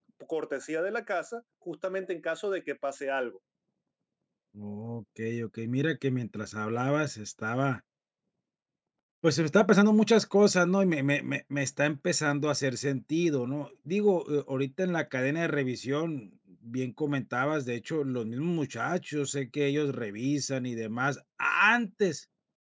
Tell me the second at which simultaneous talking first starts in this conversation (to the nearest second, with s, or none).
none